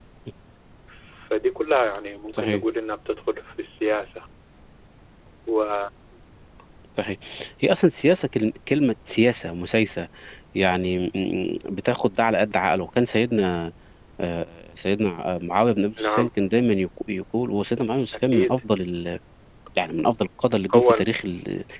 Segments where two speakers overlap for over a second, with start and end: none

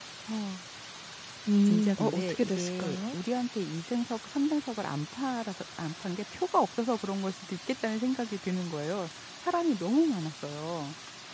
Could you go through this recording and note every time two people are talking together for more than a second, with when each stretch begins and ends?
1.6-3.2

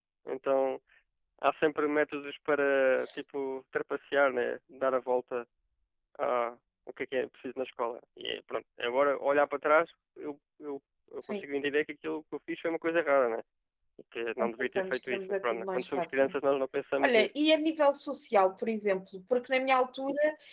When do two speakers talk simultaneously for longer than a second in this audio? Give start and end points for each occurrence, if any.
14.4-16.3

